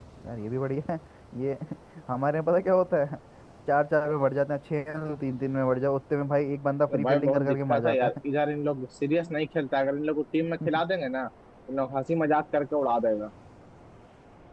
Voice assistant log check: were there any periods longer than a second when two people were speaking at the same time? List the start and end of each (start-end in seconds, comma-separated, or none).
6.9-8.1